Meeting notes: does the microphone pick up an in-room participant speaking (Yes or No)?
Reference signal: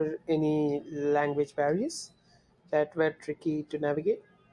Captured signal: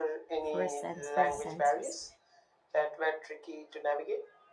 Yes